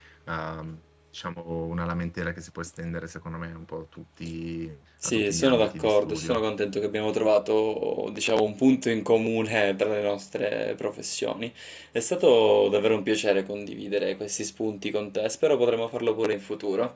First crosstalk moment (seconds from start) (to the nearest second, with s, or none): 5 s